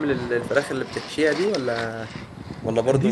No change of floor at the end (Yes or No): No